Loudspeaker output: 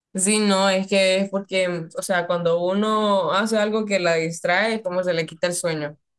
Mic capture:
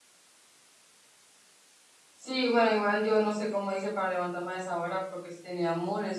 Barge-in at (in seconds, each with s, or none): 2.1 s